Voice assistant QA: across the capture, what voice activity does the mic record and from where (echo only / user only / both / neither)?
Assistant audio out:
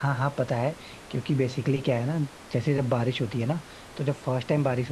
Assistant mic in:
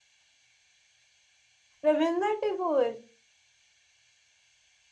user only